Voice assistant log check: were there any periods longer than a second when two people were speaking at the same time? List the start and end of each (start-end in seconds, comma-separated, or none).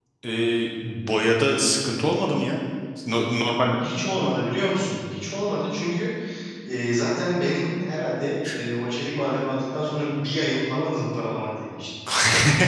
none